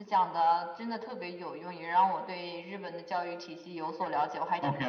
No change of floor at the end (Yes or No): No